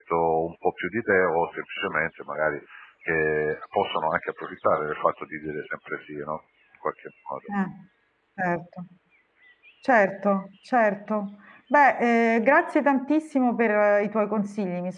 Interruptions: none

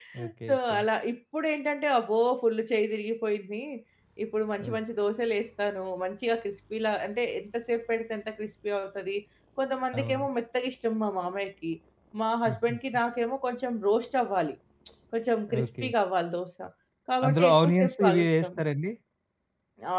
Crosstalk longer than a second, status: present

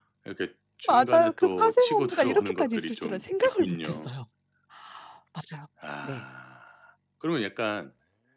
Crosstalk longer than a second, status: present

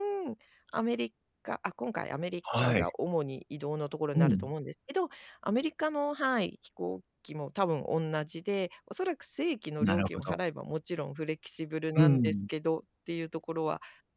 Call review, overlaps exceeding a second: none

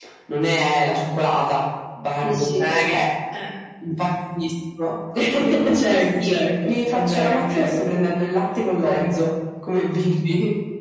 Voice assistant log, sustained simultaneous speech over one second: present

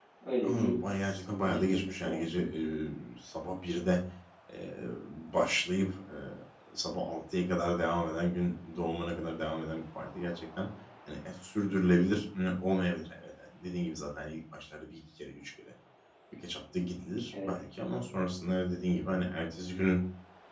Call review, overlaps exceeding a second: present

